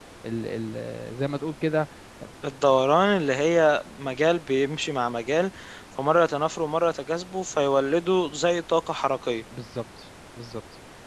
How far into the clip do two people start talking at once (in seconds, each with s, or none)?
none